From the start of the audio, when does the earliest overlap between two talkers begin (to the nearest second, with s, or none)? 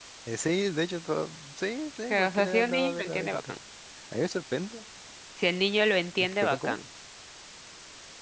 2 s